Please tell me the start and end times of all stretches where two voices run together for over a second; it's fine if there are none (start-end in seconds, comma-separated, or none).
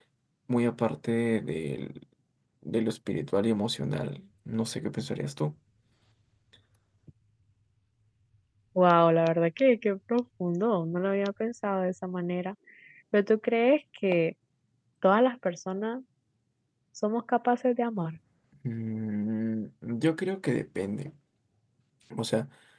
none